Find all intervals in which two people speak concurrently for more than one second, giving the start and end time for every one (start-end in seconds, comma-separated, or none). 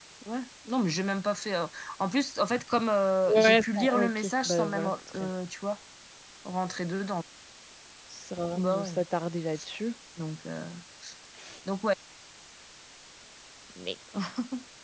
3.3-5.3